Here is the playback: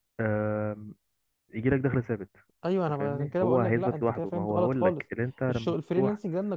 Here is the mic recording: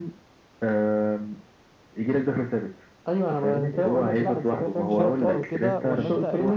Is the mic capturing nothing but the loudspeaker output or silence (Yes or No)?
No